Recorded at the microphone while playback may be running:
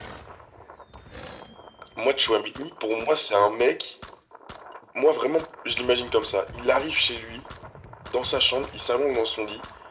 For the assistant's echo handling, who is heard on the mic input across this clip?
echo only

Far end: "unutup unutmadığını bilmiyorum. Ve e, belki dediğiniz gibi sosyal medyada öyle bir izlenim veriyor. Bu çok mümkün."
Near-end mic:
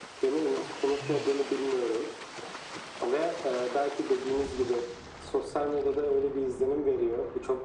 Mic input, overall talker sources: echo only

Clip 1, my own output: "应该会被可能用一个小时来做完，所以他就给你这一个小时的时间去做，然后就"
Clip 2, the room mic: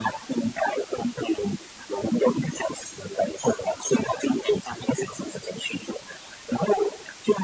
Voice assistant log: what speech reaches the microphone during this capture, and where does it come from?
echo only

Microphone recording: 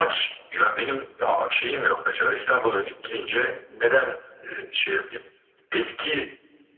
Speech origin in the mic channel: echo only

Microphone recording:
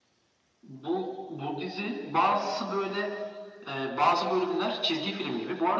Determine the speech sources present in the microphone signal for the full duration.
echo only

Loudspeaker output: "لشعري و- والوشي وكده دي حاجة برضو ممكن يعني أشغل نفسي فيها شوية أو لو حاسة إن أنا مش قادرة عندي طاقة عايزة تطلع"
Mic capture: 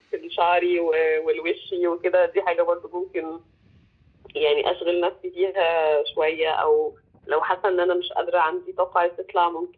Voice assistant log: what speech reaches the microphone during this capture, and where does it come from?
echo only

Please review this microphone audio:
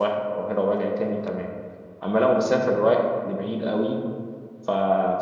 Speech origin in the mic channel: user only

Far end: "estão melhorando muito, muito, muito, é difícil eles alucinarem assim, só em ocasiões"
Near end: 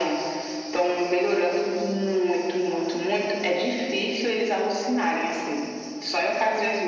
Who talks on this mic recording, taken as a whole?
echo only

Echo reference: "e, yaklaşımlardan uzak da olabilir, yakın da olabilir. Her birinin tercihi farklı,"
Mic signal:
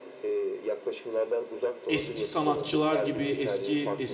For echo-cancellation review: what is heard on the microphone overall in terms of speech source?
both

